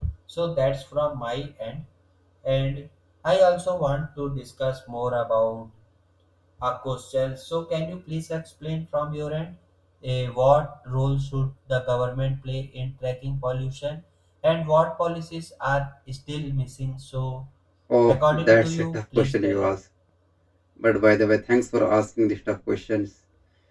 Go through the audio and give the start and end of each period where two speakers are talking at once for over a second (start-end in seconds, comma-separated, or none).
18.1-19.7